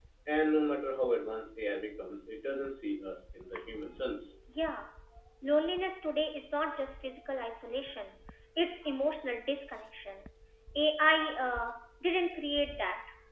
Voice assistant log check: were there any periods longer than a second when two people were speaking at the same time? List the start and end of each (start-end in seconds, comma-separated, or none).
none